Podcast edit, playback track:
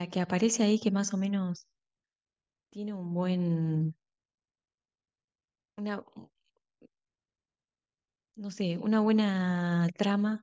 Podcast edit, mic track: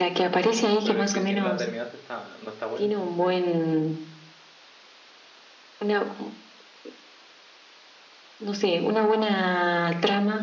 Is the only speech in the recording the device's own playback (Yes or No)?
No